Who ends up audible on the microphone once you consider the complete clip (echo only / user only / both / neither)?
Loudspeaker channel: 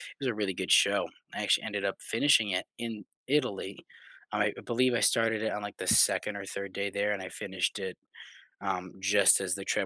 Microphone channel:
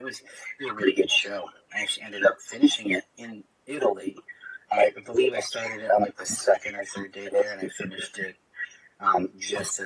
echo only